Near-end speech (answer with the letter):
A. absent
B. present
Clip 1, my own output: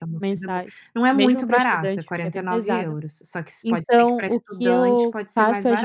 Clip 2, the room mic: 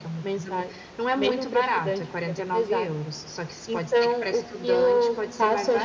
A